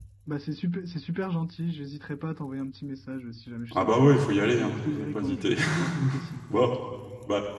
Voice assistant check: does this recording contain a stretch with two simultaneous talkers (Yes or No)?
Yes